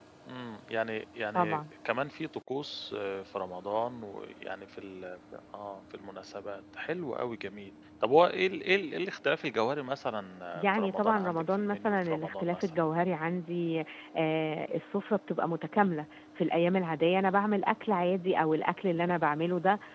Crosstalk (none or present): present